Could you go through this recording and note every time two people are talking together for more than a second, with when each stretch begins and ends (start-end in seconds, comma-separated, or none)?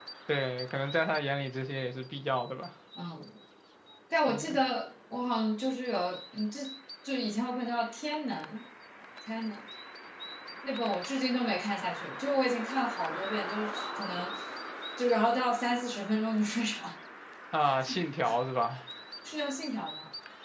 none